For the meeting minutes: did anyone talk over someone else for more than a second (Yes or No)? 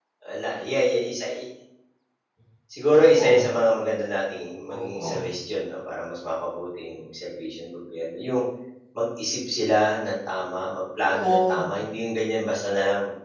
No